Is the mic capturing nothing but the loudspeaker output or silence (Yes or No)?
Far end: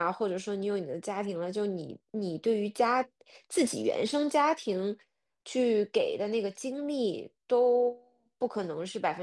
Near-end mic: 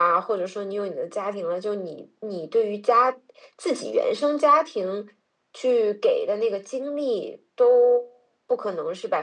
Yes